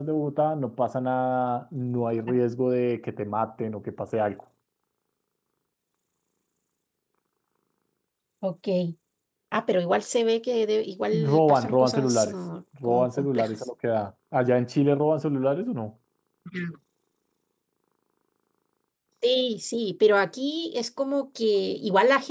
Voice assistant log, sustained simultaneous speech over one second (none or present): present